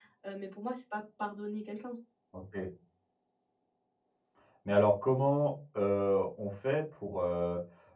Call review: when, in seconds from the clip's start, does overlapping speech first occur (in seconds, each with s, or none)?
none